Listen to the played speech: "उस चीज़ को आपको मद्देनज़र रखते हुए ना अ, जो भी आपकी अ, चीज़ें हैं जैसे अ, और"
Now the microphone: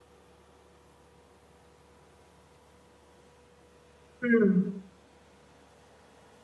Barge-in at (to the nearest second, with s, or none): 4 s